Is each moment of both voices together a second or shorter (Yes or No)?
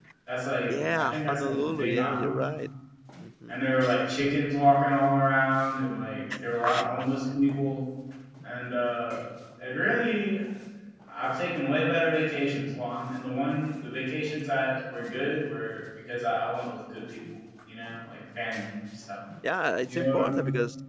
No